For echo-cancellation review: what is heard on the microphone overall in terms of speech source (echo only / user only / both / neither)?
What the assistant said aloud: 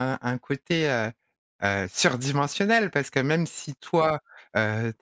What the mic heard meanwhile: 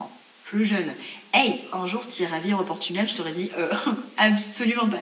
user only